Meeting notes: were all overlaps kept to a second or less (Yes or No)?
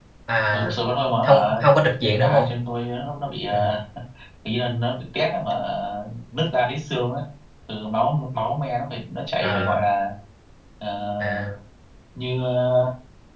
Yes